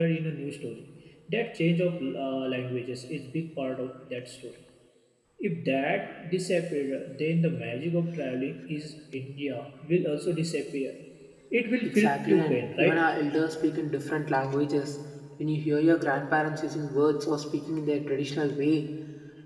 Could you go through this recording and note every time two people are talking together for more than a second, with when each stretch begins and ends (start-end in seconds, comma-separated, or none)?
11.8-13.0